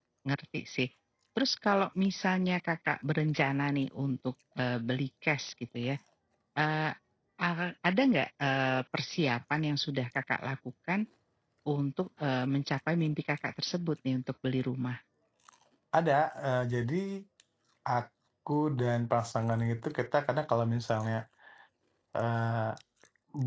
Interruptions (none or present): none